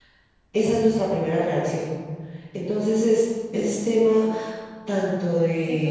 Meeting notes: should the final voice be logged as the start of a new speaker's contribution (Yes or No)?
Yes